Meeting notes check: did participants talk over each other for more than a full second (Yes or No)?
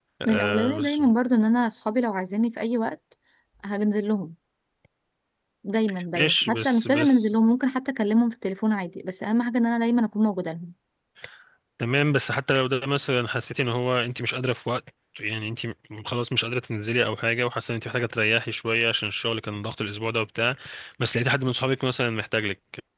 Yes